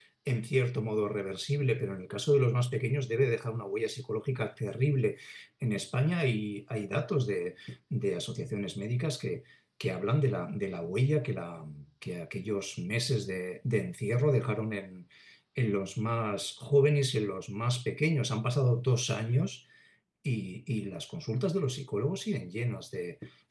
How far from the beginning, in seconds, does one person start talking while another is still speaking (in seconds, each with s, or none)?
none